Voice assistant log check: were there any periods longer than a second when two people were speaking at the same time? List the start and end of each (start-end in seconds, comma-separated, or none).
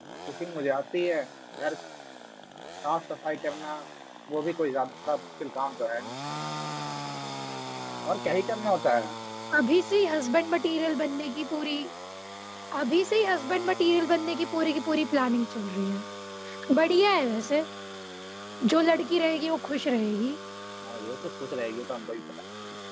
none